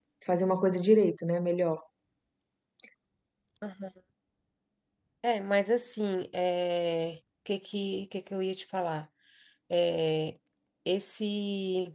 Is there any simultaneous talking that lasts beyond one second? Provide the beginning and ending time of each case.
none

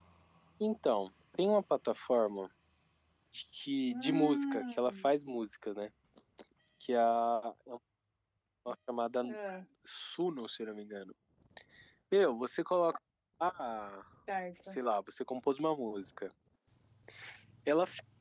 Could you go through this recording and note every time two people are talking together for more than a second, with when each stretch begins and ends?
3.9-5.1

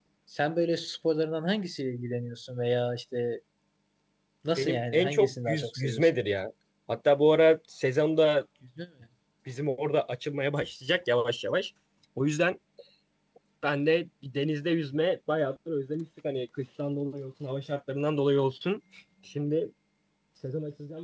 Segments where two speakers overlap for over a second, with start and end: 4.6-6.2

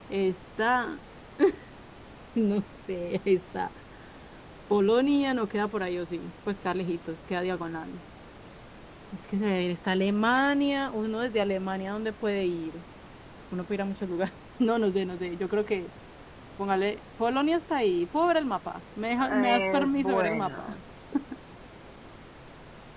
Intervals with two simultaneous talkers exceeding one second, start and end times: 19.2-20.7

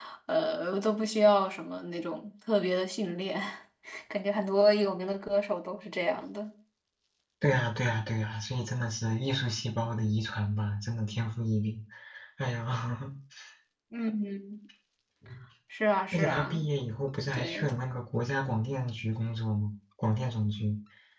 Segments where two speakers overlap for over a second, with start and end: none

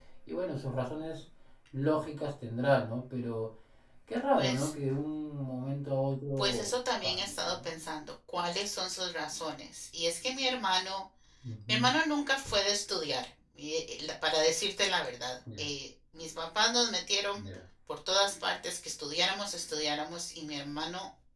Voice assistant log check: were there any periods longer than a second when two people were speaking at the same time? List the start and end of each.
6.4-7.7

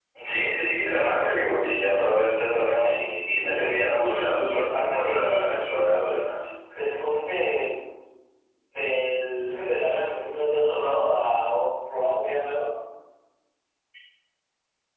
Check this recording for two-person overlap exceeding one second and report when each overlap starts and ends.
3.4-5.9

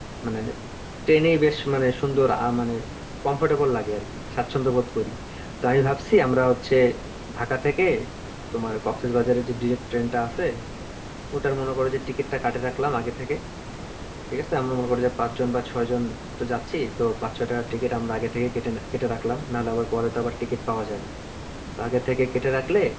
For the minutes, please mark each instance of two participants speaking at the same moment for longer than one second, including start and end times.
none

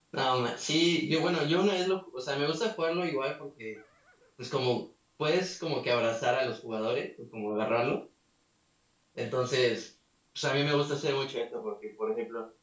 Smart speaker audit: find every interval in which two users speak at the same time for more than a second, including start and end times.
none

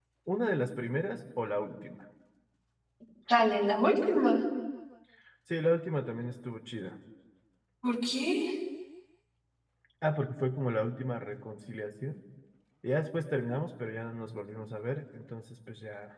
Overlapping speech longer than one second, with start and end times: none

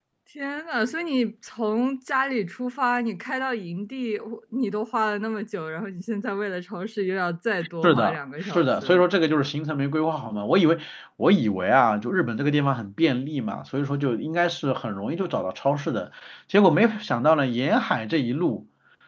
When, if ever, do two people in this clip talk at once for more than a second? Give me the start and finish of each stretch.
7.8-9.0

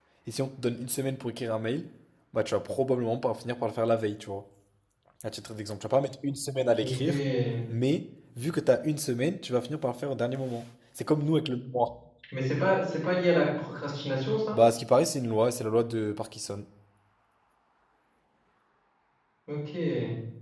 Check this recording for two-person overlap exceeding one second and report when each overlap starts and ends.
none

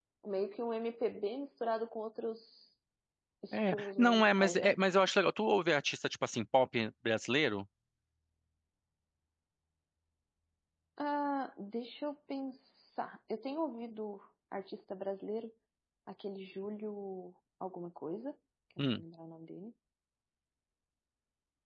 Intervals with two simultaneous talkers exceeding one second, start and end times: 3.5-4.7

